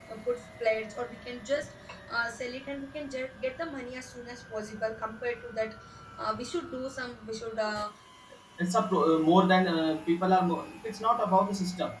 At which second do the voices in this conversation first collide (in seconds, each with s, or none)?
none